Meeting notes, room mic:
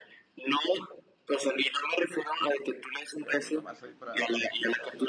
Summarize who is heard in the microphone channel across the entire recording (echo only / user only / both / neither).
both